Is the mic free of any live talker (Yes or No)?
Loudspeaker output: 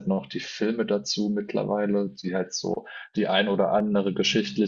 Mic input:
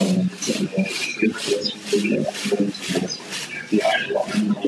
Yes